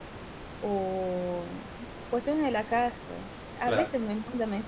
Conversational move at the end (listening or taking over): listening